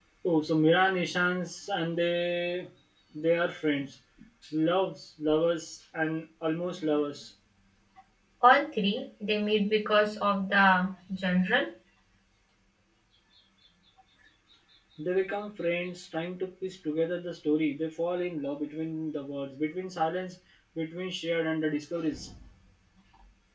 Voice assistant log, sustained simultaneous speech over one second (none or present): none